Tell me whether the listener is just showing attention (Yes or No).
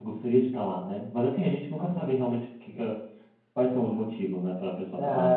No